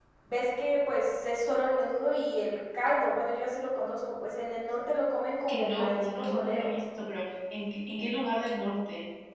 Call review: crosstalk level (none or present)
present